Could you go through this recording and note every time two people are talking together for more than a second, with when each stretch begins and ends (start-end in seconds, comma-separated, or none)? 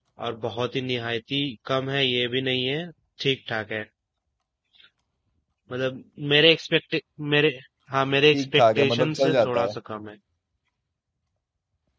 8.3-9.8